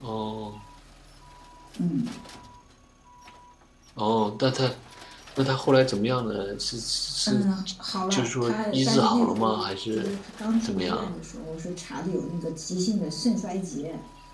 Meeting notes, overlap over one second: present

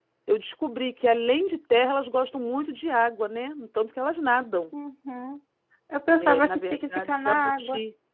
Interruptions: present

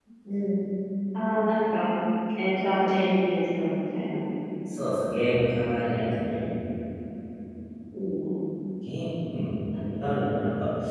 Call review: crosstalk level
none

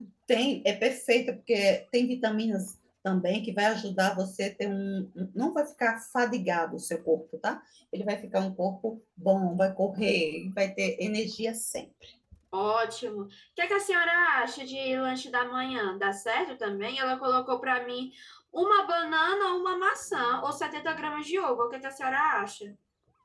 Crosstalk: none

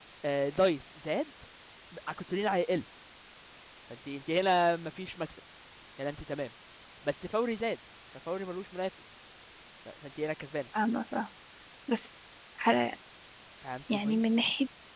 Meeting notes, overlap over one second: none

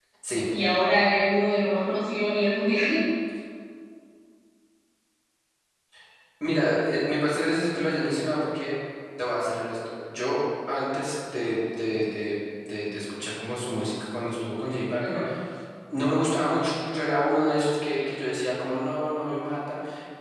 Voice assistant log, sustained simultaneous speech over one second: none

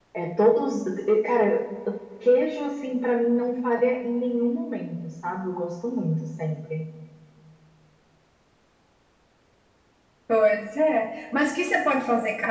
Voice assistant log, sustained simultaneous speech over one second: none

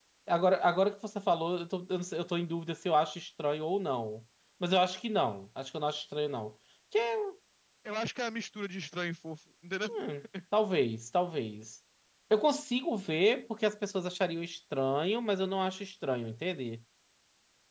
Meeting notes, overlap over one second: none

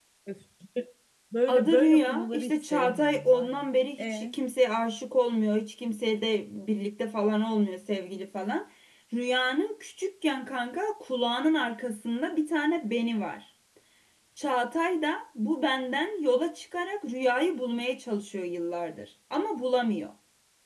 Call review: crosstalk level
present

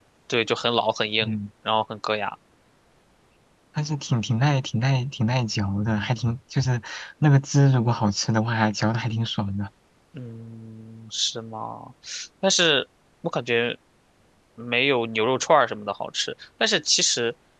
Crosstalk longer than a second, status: none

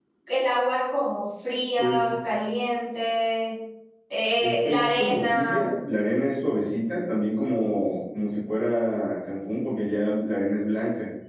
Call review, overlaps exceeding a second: present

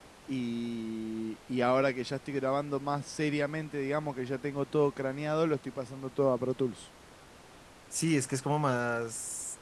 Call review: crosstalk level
none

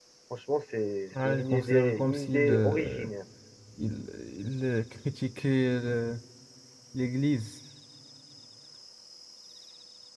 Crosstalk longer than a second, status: present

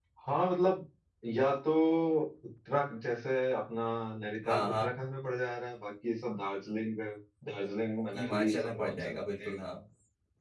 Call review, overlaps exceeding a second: present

